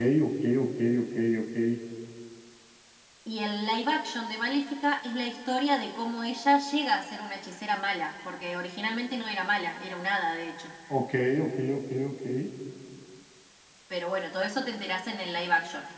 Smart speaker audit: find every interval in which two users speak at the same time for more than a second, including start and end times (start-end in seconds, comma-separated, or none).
none